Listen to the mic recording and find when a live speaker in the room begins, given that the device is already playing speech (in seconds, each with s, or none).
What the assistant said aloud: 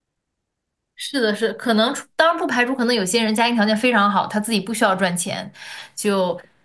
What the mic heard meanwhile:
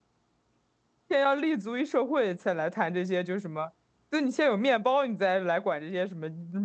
1.1 s